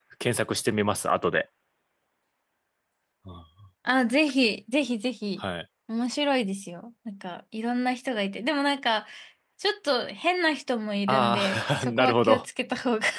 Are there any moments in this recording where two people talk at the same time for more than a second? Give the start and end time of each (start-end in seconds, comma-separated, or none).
11.1-12.4